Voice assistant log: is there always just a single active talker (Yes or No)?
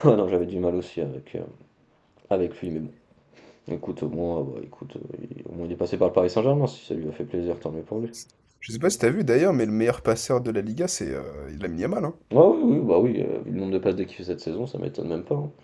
Yes